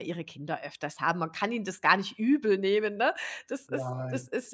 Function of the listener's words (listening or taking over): listening